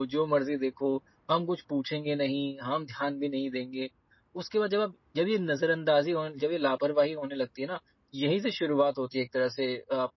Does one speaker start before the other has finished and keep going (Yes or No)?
No